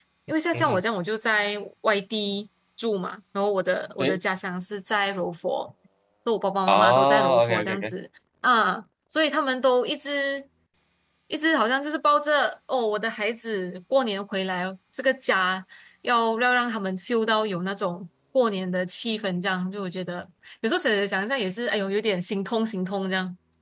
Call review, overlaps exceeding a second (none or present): present